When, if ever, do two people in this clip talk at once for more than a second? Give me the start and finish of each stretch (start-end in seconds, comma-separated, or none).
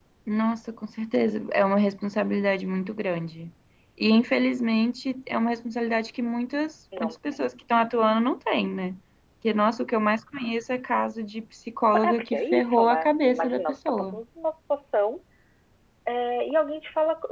12.0-14.2